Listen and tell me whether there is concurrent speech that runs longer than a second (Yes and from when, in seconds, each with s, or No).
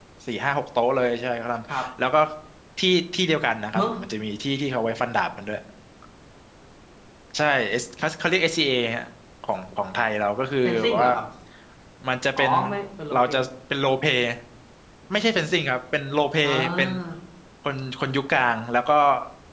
No